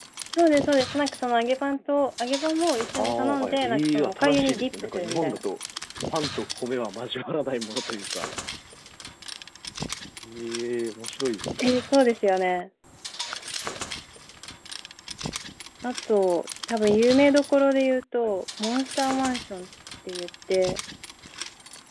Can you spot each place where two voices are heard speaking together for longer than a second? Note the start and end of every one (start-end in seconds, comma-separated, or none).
3.0-5.4